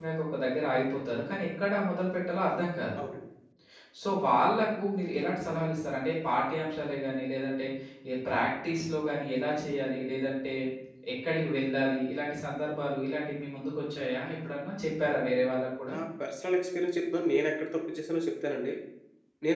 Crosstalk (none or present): none